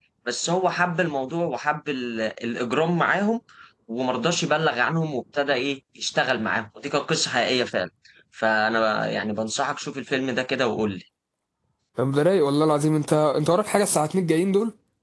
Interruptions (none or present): none